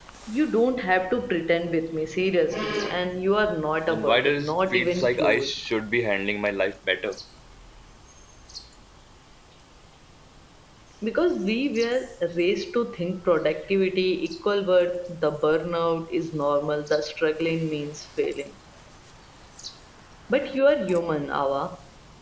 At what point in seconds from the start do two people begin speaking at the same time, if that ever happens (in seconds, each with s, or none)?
3.9 s